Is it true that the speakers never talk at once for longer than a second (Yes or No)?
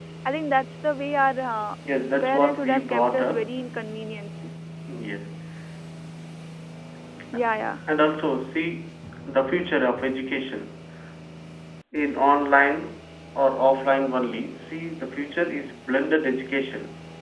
No